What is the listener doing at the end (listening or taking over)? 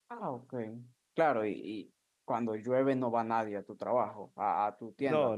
taking over